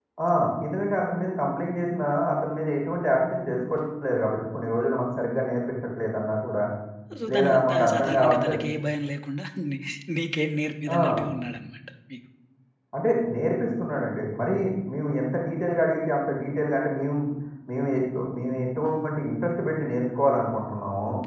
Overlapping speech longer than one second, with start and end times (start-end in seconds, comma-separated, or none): 7.3-8.6